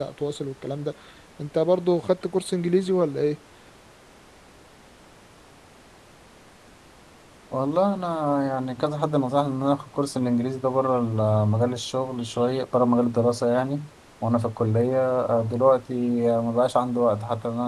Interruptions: none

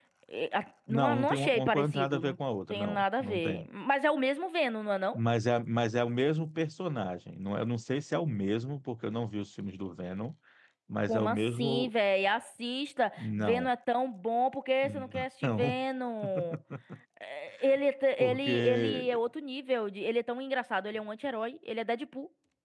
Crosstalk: present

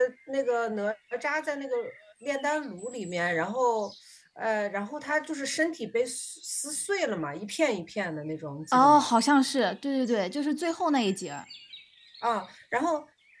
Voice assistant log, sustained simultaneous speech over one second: none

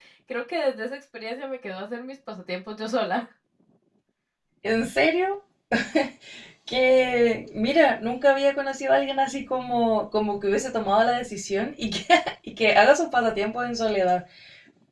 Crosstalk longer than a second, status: none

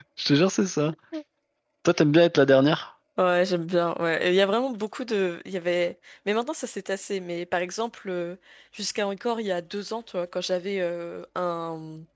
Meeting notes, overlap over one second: none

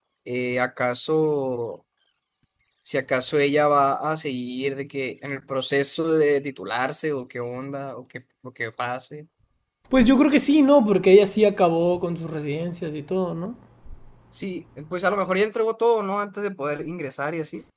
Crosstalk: none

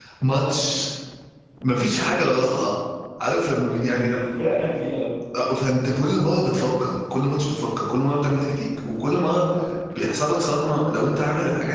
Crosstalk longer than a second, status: none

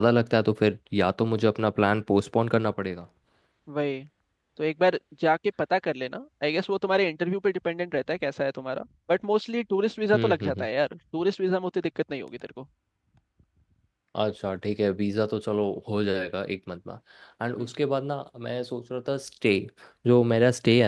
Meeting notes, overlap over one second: none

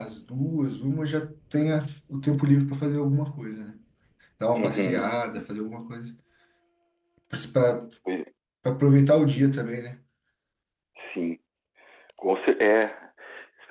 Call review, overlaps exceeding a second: none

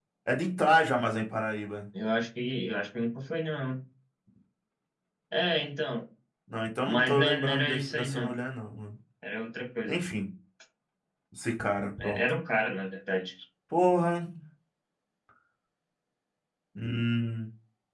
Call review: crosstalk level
present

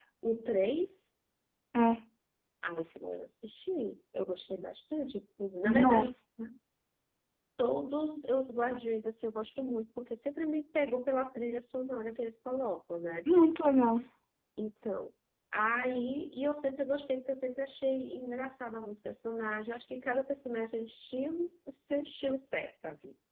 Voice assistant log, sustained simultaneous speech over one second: none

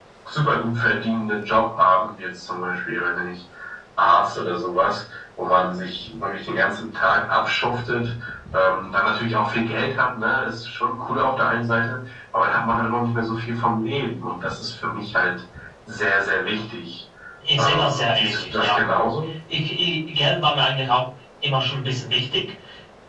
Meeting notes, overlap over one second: present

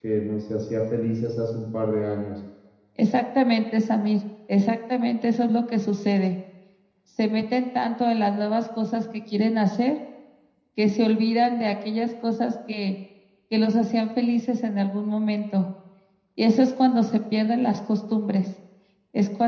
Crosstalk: none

